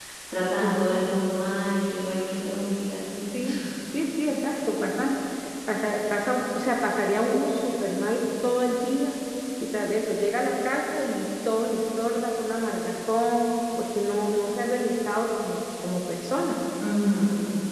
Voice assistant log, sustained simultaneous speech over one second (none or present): none